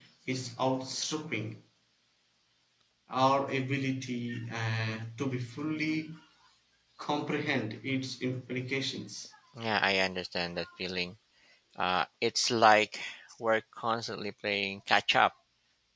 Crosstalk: none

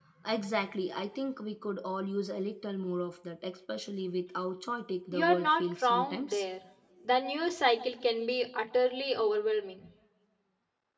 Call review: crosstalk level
present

